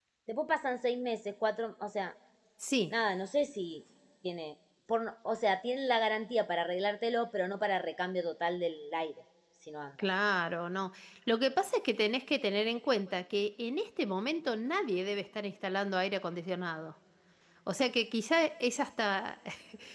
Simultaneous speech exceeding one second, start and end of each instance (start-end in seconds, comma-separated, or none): none